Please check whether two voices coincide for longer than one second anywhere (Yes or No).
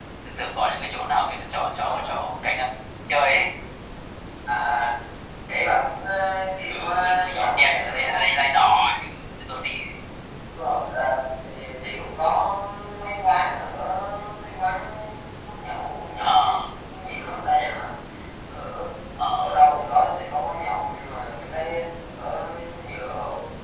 Yes